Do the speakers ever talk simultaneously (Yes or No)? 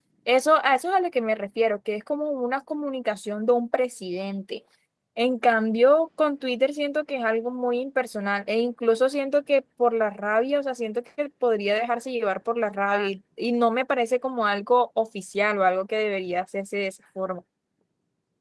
No